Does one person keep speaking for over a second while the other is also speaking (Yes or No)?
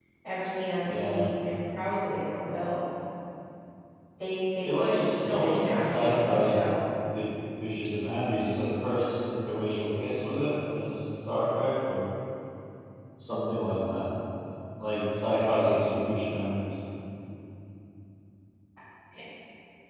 Yes